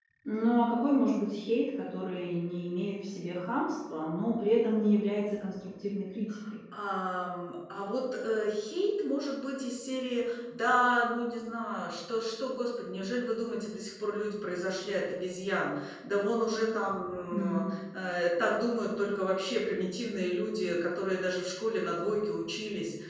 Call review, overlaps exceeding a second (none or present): none